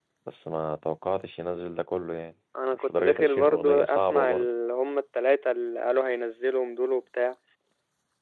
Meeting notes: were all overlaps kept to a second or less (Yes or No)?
No